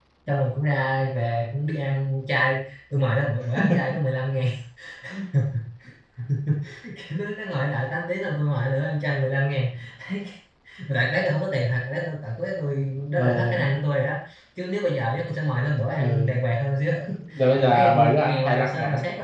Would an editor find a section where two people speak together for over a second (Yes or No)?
Yes